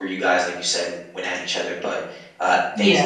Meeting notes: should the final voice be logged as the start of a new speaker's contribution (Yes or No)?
Yes